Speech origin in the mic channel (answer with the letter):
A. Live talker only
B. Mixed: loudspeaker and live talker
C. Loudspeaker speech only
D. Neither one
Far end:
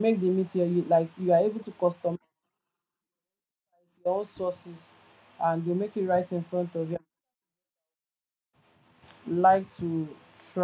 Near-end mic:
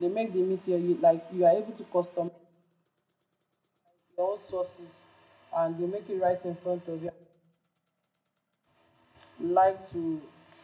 C